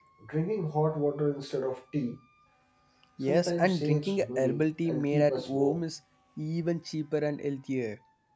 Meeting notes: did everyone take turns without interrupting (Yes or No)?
No